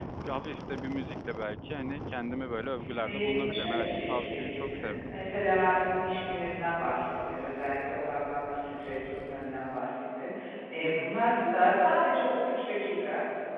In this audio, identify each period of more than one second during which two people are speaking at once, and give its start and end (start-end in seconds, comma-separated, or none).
3.0-5.0